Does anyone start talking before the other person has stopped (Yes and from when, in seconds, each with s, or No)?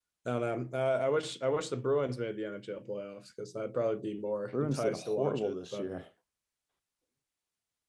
Yes, from 4.5 s